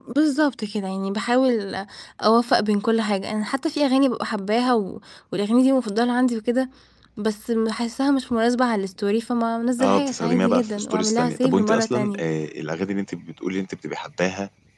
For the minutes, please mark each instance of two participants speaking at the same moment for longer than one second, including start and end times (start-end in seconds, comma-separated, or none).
9.8-12.2